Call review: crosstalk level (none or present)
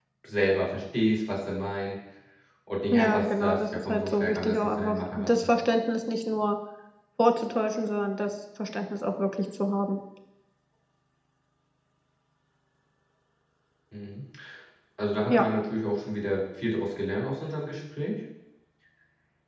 present